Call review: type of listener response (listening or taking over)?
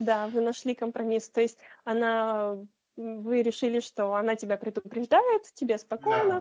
listening